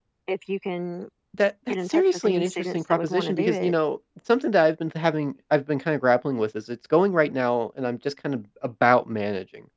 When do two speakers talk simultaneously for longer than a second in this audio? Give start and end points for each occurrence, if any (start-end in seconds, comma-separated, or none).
1.9-3.8